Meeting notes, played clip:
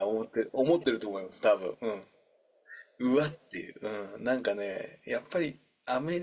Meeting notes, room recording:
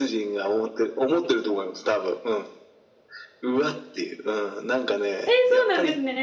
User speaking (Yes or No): Yes